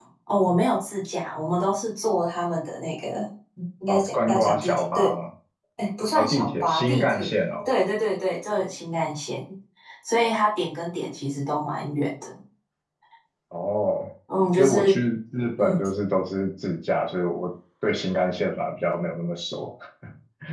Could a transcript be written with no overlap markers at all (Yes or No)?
No